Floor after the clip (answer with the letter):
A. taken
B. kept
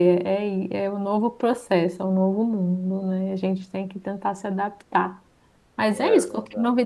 B